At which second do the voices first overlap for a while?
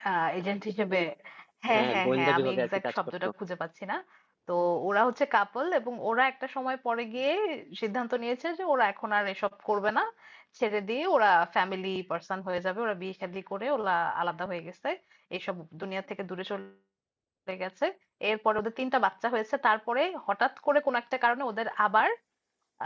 2 s

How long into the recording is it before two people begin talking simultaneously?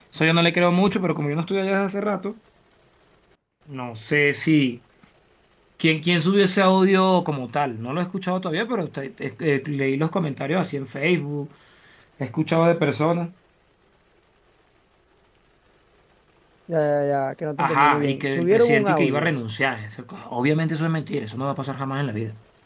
18 s

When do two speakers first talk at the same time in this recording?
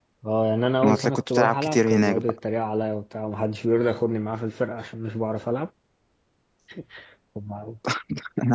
1 s

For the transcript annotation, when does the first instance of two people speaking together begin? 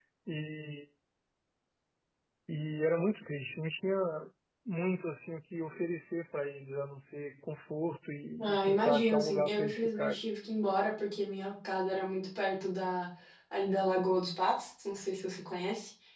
8 s

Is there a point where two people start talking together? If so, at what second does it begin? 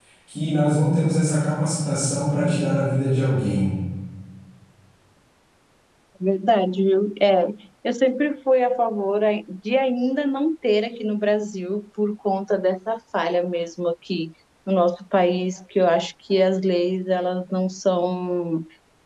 none

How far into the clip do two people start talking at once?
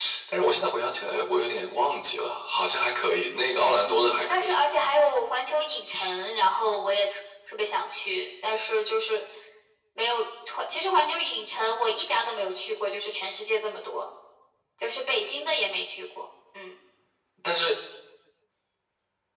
4 s

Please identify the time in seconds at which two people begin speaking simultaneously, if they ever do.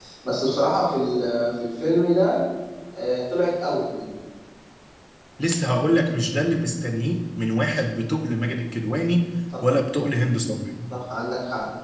none

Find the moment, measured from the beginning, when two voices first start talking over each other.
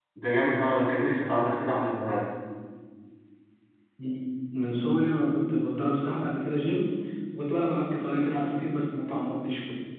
none

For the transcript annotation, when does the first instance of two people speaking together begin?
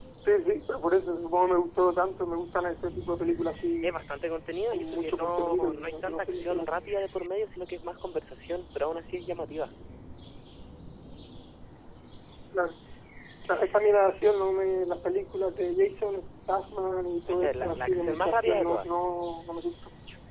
5 s

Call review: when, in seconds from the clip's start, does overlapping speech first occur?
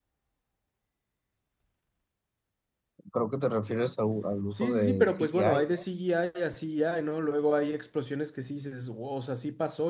5 s

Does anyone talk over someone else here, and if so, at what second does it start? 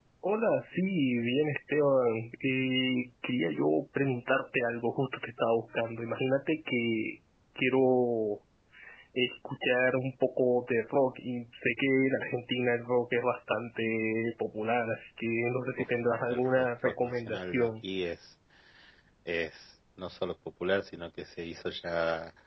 16 s

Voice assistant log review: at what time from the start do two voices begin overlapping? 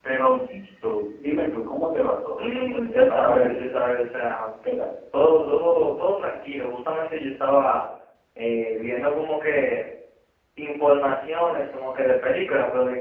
2 s

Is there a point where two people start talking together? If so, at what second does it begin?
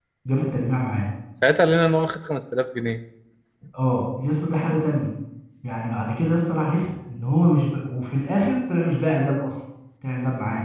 none

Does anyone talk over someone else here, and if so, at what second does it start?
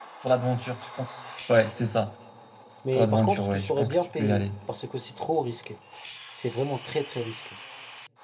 3 s

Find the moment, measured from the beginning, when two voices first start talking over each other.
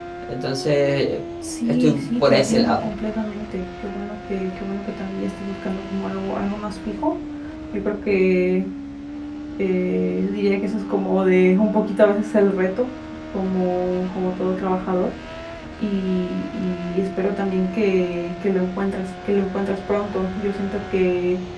2 s

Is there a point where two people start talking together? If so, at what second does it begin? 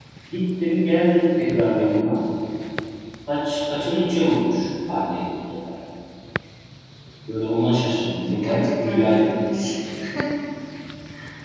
8 s

